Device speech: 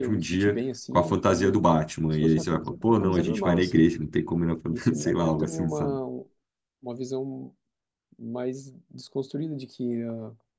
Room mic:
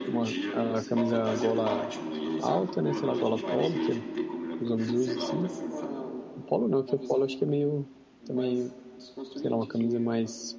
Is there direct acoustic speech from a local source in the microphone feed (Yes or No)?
Yes